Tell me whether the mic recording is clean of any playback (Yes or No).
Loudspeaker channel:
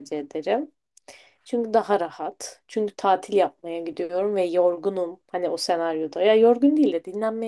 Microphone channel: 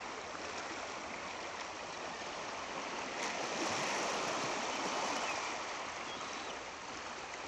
Yes